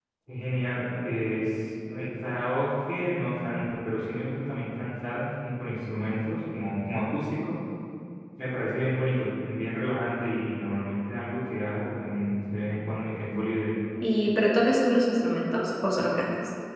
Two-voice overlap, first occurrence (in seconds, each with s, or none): none